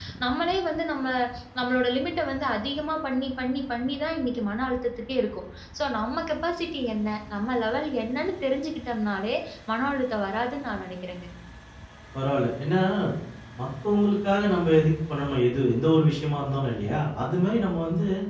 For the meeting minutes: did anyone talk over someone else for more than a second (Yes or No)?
No